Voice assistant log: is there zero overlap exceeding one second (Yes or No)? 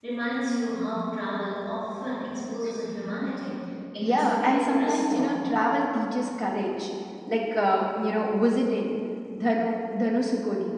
No